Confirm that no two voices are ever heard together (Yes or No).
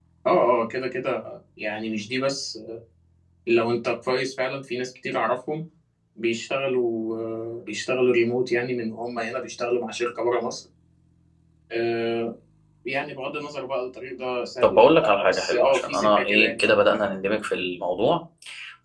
No